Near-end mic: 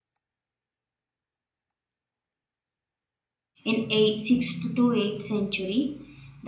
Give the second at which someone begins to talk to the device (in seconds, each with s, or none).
3.7 s